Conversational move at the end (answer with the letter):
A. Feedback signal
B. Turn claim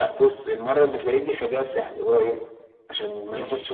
A